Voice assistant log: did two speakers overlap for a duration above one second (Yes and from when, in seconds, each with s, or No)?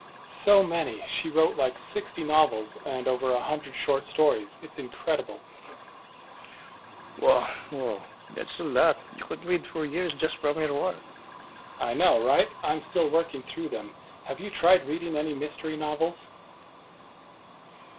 No